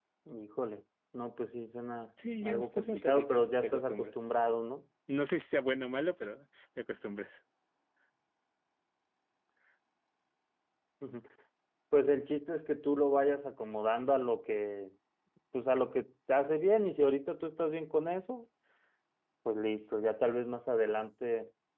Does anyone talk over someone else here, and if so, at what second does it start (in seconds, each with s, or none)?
2.4 s